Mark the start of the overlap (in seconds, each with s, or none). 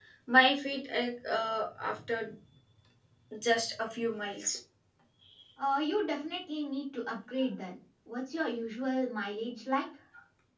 none